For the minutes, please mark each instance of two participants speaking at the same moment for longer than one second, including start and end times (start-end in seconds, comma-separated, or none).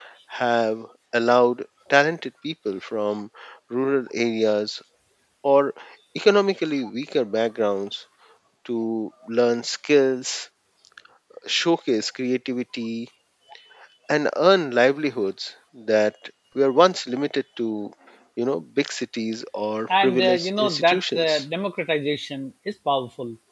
19.9-21.4